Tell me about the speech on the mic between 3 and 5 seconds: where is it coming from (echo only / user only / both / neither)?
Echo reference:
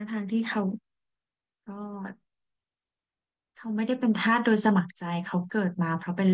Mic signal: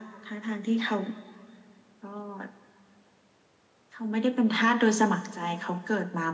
echo only